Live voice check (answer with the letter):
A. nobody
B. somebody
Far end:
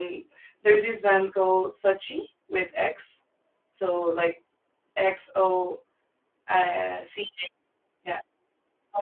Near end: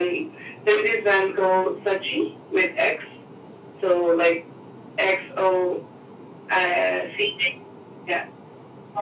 A